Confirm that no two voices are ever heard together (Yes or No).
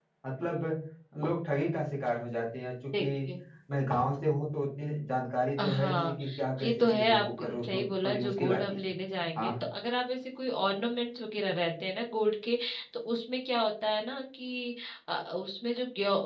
No